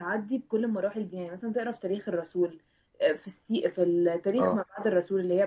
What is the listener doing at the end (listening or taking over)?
listening